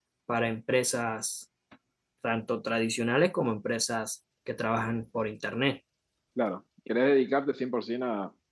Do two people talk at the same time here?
No

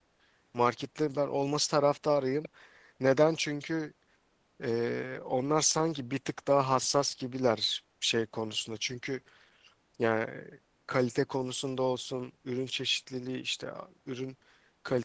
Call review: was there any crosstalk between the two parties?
No

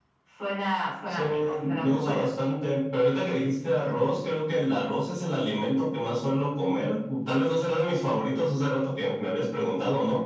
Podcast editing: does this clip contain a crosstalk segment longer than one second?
Yes, from 1.1 s

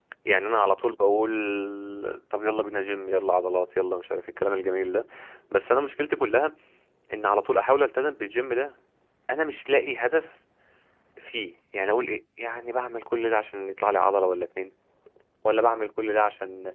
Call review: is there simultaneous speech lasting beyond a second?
No

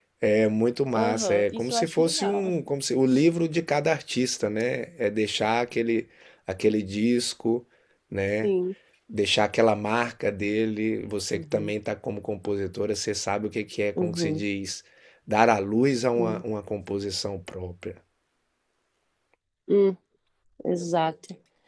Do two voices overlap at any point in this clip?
Yes, from 0.9 s

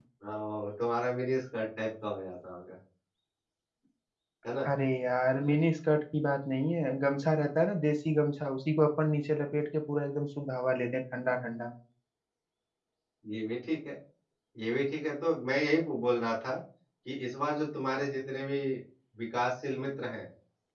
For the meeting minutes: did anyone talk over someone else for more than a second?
No

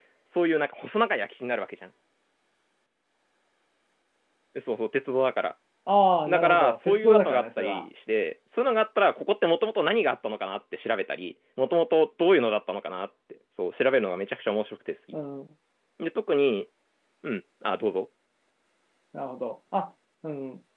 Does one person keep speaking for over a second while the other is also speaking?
Yes, from 6.3 s

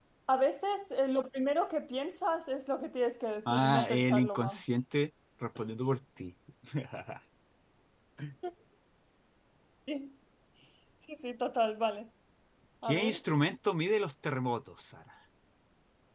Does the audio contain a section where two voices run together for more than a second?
Yes, from 3.5 s

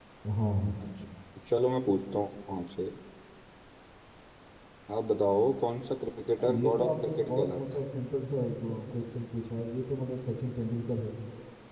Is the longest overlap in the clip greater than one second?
Yes, from 6.3 s

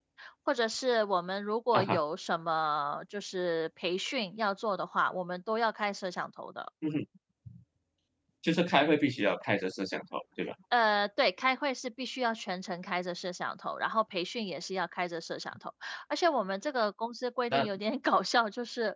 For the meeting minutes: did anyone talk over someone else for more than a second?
No

